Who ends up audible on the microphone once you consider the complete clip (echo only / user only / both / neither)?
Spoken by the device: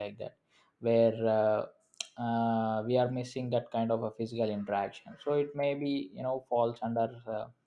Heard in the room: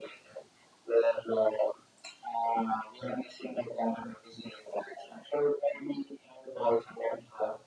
echo only